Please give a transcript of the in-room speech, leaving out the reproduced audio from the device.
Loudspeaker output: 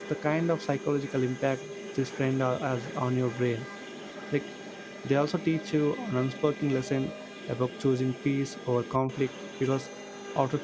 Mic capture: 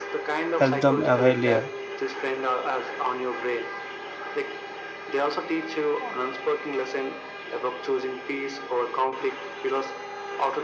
help them earlier.

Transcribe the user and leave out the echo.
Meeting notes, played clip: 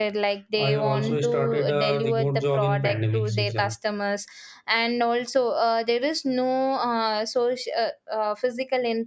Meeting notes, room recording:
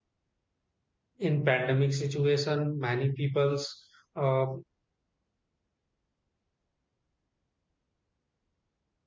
in pandemic situation many peoples uh,

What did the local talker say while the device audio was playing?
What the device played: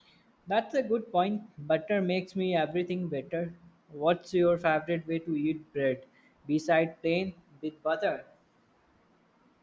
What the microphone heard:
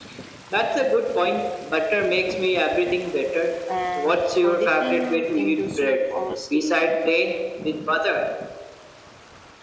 and for dipping into soup or stew.

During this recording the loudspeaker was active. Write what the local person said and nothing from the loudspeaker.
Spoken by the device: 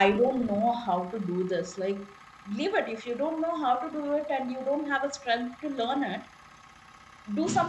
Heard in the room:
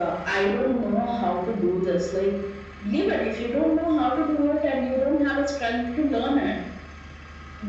none

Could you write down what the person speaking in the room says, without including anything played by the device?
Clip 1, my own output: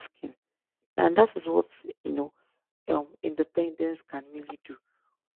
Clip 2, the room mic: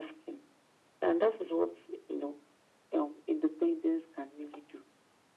none

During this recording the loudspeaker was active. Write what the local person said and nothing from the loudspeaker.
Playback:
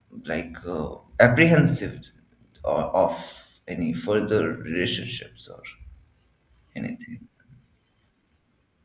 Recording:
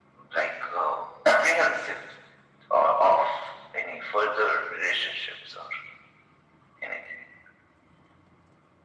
none

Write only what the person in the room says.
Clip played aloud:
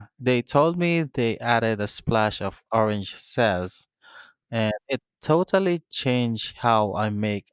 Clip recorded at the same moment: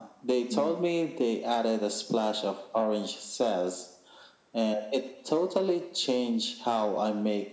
hmm

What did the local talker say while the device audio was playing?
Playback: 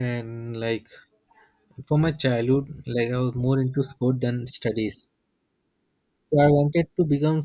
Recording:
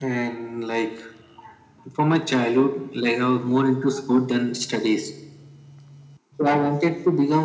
none

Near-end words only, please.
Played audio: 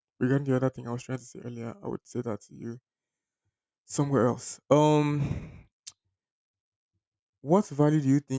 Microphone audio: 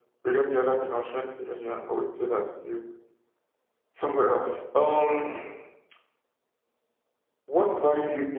none

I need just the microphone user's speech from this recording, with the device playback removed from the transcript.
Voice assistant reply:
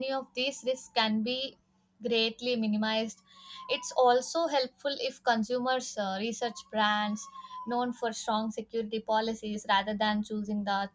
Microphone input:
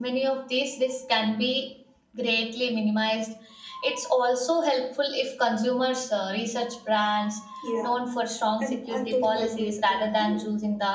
Yeah, and I totally agree with you. I,

